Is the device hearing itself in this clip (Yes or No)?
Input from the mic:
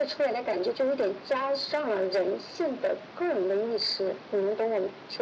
Yes